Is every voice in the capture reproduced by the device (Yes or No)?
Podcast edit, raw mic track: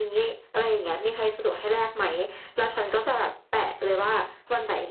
Yes